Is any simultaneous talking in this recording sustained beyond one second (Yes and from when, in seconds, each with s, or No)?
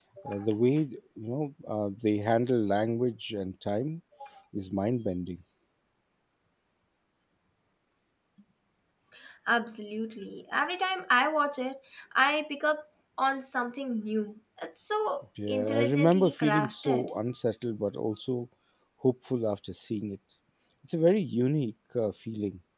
Yes, from 15.4 s